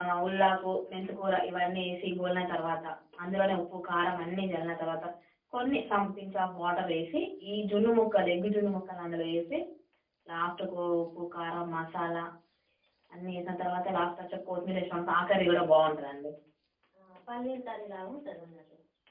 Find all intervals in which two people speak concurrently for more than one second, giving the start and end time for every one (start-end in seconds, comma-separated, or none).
none